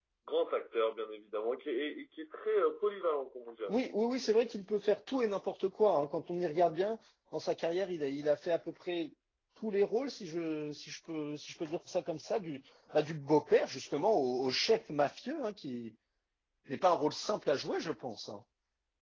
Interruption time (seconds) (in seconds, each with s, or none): none